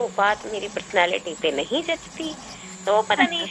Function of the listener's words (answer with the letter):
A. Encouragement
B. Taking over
A